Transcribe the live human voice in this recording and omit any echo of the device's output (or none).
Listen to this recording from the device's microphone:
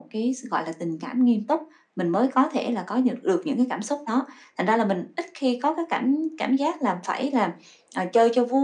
none